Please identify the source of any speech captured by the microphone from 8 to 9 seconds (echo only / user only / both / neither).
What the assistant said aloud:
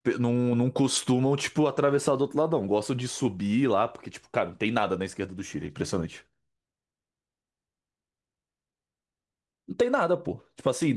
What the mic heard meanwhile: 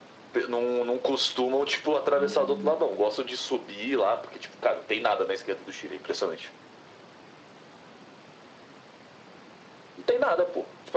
neither